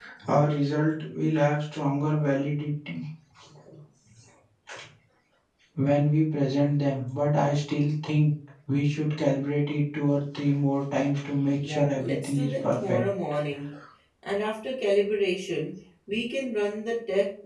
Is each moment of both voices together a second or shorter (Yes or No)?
No